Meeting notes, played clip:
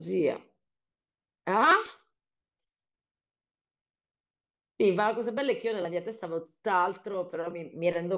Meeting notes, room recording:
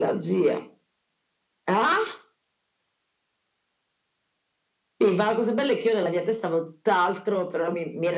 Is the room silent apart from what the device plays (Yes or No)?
Yes